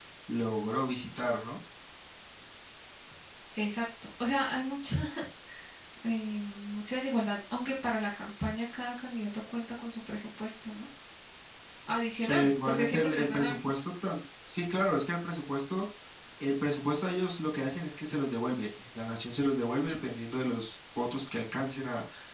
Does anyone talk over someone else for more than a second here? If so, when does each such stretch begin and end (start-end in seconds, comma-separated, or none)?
12.3-13.6